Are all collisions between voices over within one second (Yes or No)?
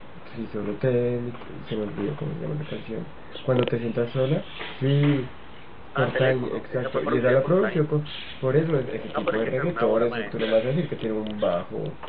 No